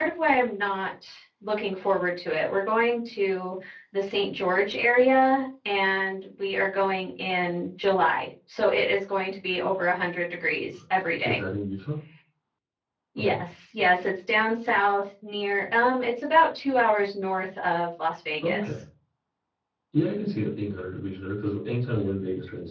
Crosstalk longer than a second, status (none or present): none